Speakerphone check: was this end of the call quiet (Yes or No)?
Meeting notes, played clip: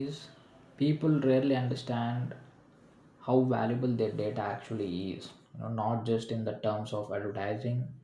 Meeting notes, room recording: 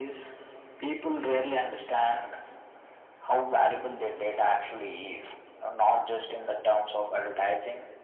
Yes